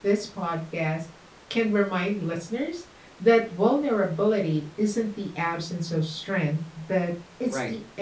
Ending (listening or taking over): taking over